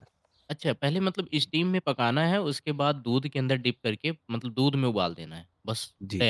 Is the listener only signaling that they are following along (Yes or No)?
No